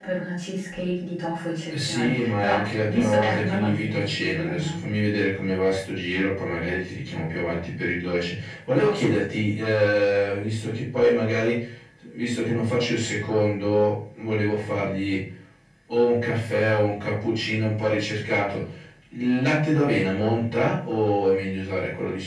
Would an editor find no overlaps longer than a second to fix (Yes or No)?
No